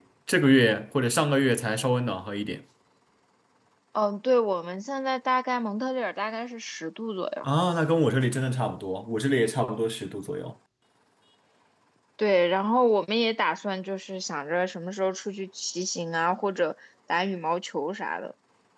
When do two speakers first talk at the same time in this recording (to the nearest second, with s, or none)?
none